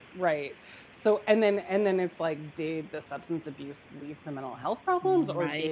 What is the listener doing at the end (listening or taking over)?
listening